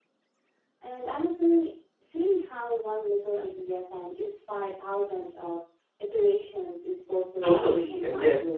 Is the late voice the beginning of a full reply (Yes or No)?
Yes